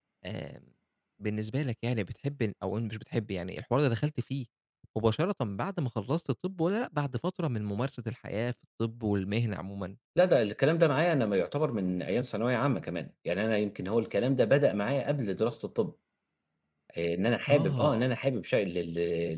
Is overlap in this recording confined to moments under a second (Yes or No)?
Yes